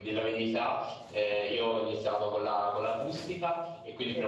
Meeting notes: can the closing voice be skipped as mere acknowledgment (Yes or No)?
Yes